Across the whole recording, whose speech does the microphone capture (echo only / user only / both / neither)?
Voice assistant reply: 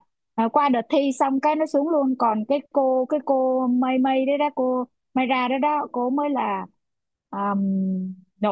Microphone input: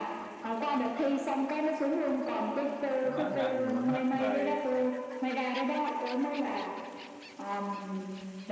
both